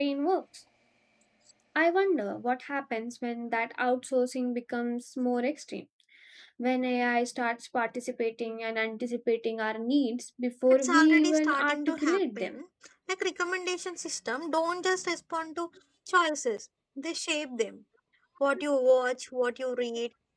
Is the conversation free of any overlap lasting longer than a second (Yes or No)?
No